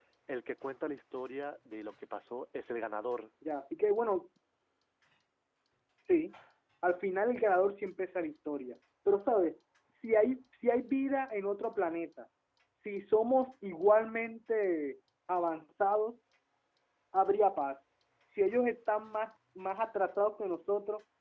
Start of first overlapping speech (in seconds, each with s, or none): none